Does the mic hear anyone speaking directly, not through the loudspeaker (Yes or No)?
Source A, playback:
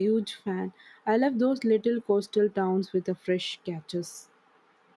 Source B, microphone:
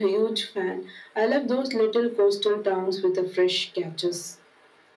No